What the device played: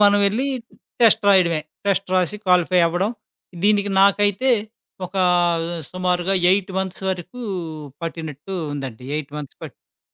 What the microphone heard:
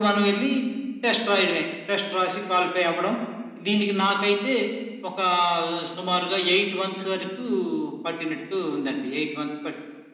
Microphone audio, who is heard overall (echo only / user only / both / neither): echo only